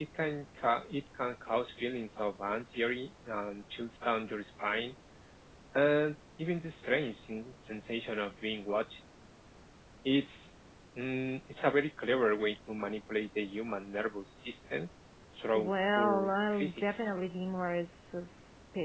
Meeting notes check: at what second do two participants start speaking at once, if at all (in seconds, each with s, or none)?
15.5 s